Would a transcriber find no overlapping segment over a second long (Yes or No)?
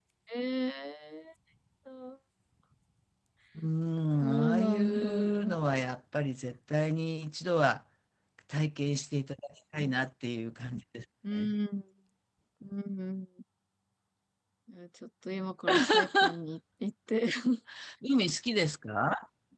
No